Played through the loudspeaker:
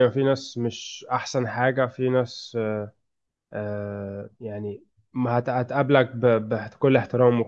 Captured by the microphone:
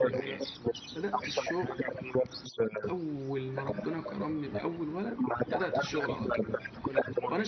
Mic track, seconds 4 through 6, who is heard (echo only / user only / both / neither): both